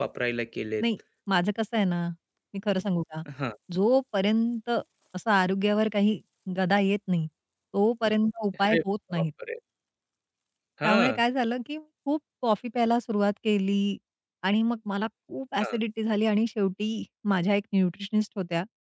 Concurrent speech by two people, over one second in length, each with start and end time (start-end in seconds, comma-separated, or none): none